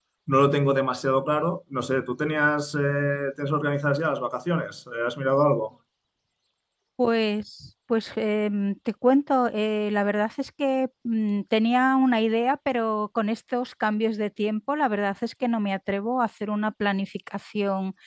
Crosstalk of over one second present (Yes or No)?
No